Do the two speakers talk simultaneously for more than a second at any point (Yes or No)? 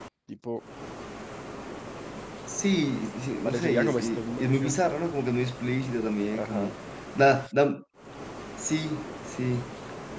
Yes